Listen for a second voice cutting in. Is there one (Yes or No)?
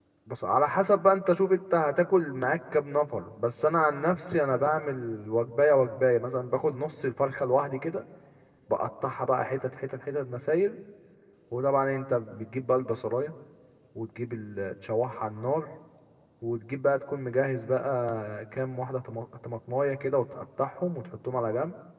No